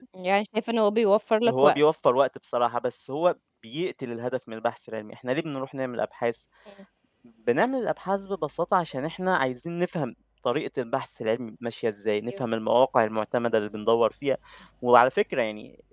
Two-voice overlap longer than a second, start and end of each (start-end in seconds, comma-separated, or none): none